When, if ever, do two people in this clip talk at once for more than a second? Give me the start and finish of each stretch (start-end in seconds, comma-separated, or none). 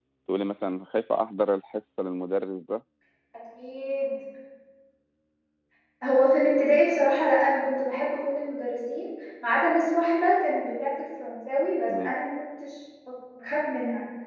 none